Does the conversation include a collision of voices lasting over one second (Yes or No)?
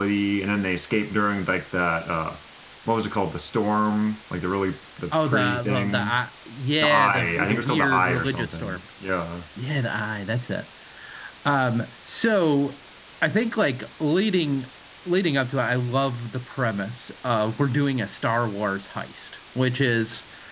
Yes